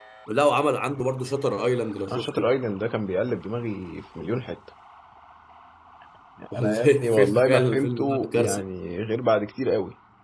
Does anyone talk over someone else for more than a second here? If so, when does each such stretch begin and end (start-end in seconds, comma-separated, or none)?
6.5-8.6